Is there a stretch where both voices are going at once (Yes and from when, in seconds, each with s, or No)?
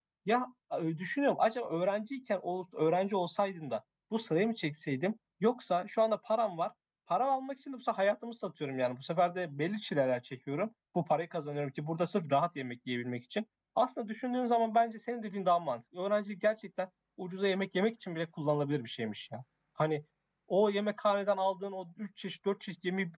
No